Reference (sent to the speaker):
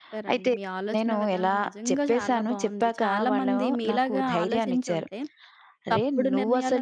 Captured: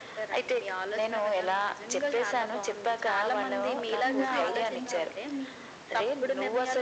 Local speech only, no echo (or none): ఆహా! మొదటి నుంచి ఇలా ఉంది కాబట్టి మీ